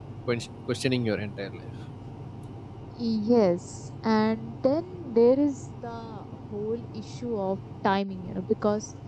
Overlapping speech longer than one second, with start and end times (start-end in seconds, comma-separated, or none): none